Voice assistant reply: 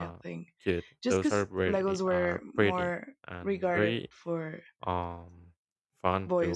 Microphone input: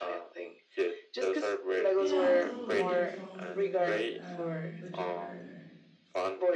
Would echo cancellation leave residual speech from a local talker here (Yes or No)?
Yes